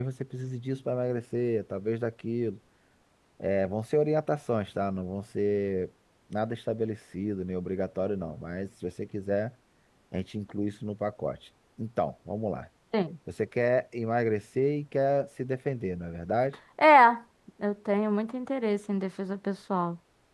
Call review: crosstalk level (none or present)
none